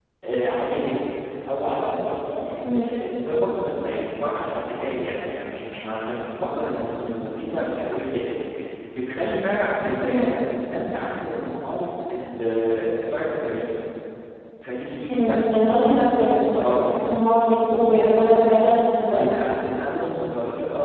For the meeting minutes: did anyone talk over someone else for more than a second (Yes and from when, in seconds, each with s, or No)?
No